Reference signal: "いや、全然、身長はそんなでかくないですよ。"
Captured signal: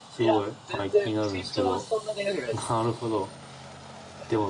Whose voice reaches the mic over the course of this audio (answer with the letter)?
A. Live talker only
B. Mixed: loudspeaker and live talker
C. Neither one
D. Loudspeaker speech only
B